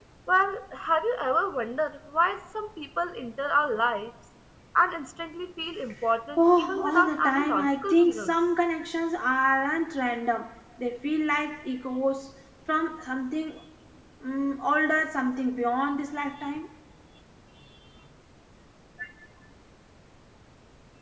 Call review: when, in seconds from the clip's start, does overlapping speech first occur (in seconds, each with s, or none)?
6.4 s